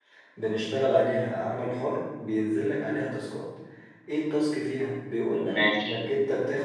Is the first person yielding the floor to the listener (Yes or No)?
No